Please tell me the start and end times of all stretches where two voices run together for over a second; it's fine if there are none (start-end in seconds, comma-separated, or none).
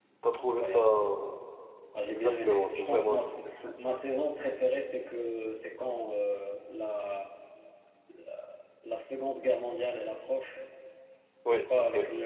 2.1-3.4